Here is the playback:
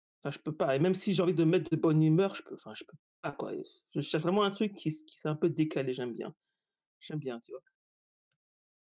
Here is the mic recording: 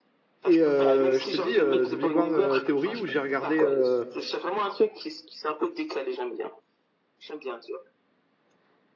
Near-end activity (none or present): present